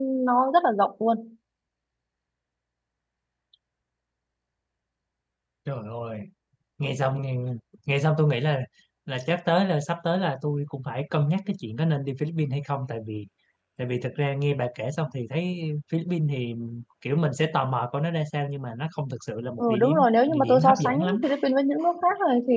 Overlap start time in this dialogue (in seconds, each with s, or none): 19.6 s